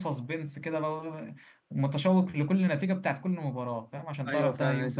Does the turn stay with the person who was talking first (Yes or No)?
No